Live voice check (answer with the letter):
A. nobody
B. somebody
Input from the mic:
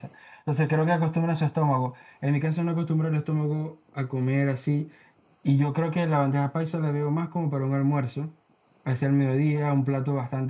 A